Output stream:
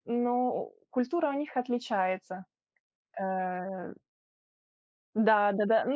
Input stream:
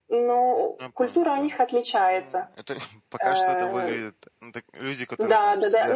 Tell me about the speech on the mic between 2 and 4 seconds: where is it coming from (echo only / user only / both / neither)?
both